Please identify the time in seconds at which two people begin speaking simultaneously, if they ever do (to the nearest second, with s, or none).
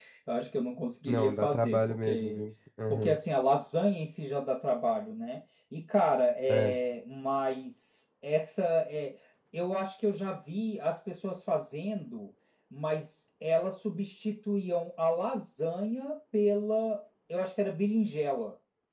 1 s